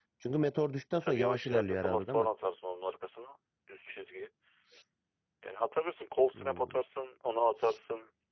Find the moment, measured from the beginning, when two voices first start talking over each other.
1.0 s

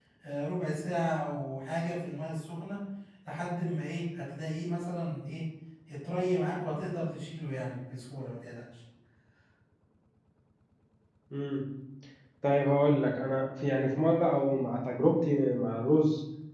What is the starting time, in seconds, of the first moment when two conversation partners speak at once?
none

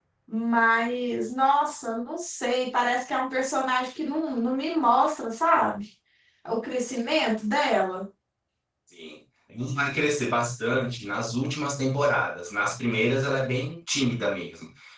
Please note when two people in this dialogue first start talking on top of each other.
none

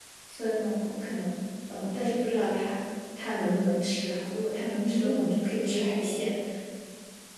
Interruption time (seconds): 4.7 s

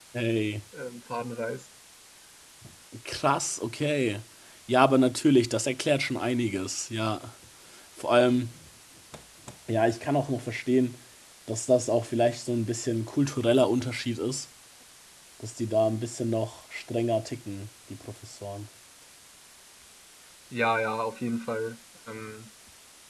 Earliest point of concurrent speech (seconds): none

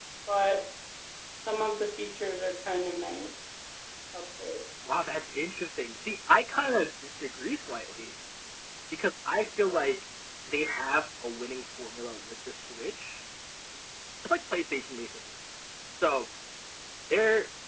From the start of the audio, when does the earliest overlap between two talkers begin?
none

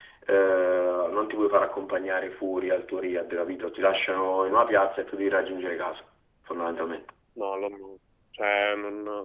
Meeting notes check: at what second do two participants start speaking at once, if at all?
none

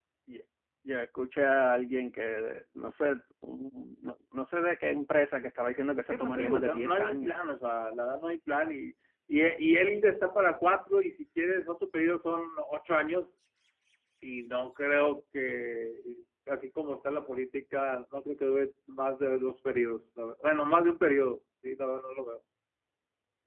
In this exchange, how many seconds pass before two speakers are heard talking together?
6.1 s

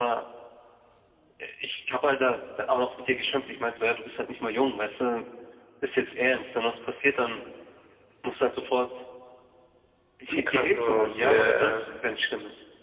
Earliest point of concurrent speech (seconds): 10.3 s

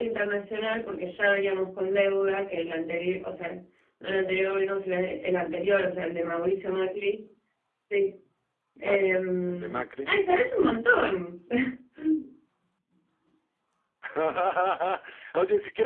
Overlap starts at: 8.9 s

